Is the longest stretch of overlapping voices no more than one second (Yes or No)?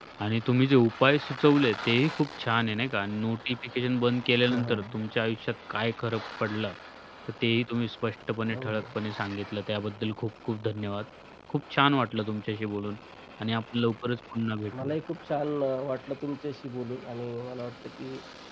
Yes